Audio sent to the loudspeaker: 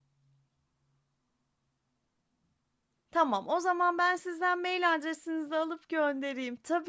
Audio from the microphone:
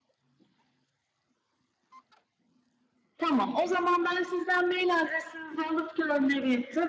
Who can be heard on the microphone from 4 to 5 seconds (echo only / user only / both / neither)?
echo only